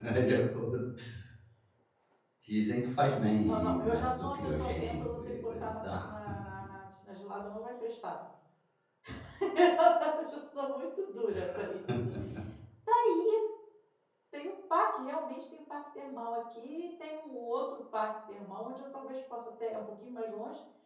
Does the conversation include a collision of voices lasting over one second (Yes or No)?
Yes